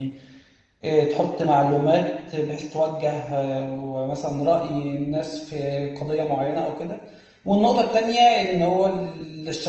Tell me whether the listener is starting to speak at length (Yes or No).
No